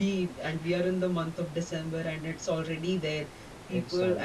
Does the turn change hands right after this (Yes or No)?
No